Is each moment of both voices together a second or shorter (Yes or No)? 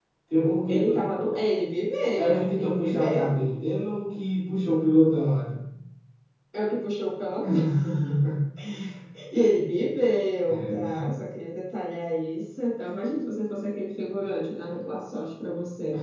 No